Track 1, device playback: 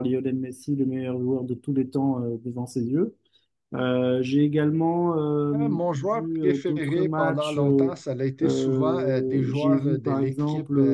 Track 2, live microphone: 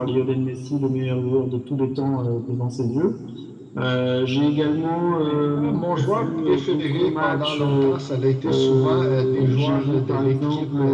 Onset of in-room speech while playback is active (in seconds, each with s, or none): 5.2 s